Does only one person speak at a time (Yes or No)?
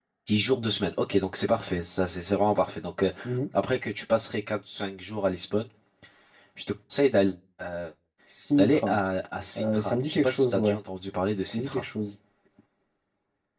No